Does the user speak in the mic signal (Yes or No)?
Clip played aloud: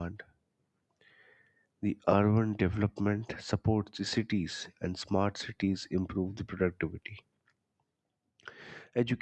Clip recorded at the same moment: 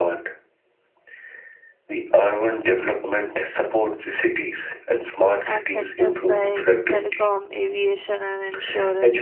Yes